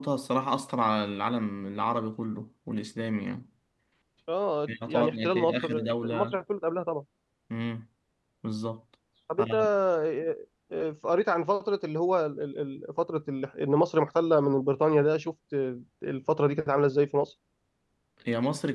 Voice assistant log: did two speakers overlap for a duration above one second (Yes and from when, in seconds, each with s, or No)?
Yes, from 4.9 s